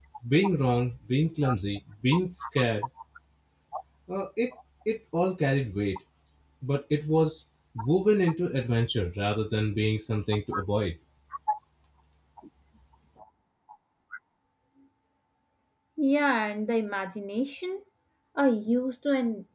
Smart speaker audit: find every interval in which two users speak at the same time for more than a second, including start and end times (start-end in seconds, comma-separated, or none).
none